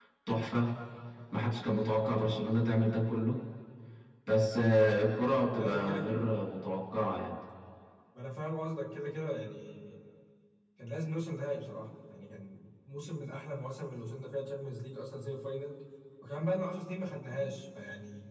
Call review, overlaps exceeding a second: none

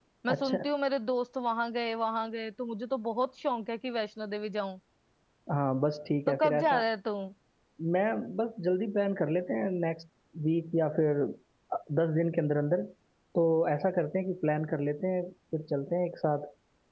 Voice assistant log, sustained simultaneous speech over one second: none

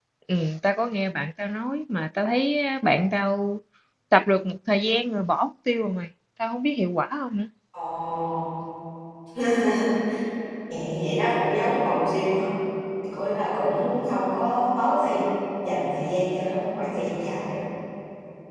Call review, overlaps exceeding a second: none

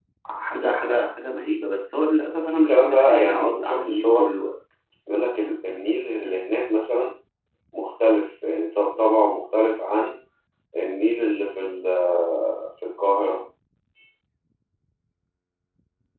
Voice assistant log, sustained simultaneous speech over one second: present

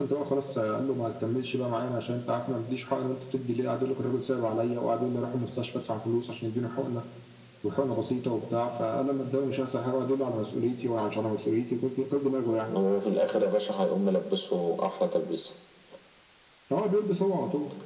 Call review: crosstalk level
none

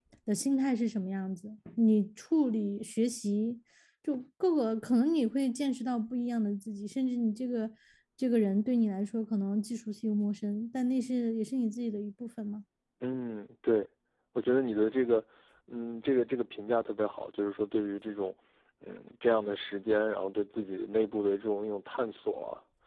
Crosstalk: none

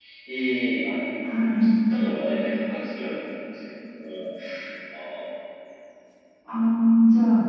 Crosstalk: none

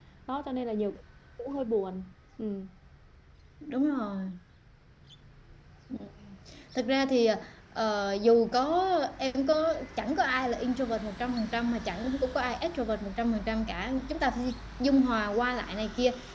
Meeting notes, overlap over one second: none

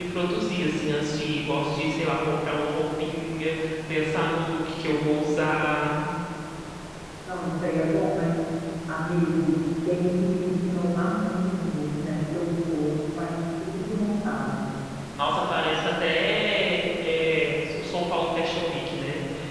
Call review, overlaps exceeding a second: none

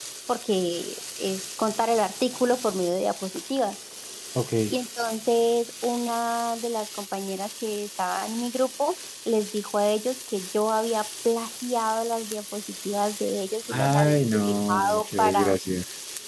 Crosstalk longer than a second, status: present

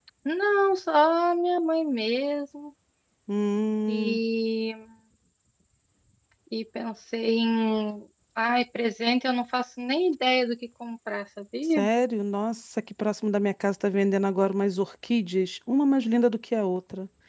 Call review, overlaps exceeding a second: none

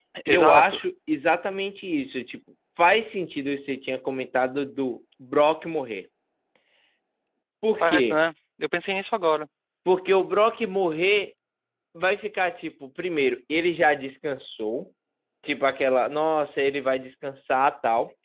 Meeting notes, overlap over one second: none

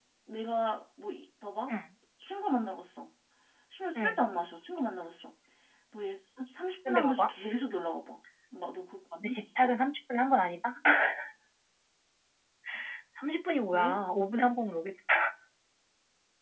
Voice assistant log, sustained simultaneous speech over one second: none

